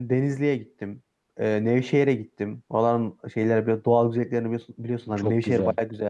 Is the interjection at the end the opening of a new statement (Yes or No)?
No